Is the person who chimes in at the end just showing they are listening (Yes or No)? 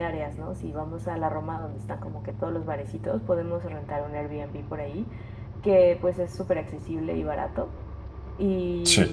Yes